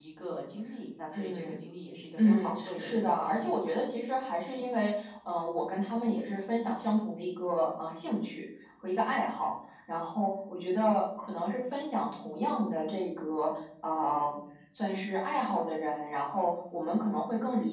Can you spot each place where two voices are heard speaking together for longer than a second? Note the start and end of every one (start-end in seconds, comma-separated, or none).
2.2-3.7